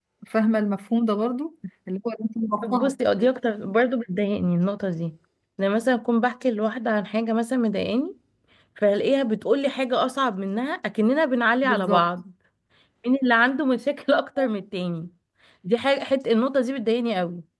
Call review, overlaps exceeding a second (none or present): none